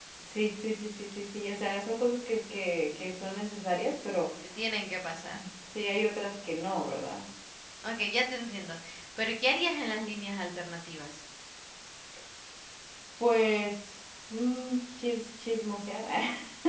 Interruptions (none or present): none